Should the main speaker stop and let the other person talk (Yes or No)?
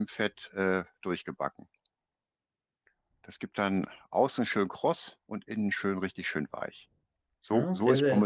Yes